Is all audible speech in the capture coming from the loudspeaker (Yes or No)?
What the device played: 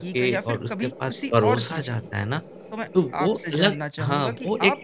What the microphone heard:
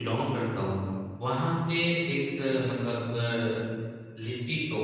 No